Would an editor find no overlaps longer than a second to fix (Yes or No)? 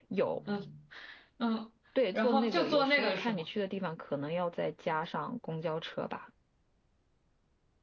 No